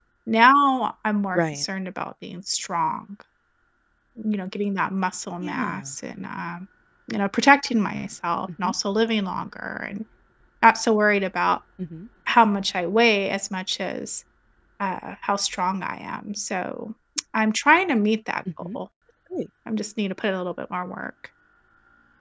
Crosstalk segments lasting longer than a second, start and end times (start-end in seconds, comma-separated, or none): none